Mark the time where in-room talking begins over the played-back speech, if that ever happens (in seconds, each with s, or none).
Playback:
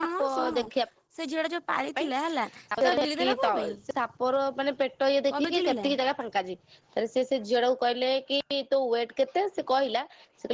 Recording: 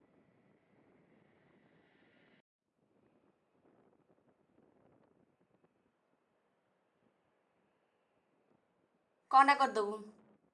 9.3 s